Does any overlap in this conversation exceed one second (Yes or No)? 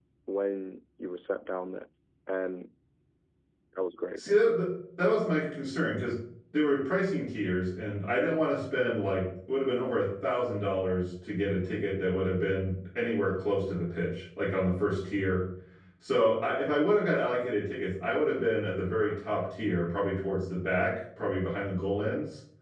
No